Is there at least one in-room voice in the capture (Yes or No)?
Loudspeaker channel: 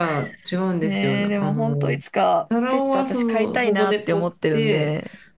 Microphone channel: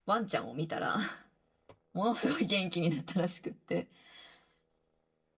Yes